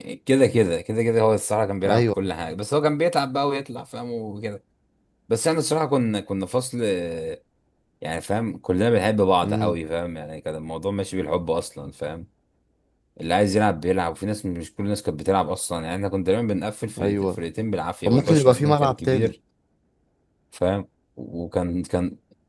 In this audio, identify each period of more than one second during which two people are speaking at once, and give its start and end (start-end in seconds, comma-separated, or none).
18.1-19.3